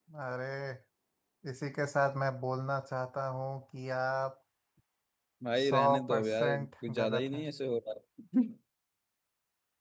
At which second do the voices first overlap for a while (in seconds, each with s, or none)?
5.6 s